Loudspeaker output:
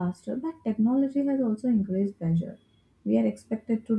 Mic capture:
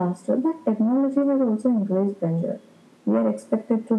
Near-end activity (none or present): none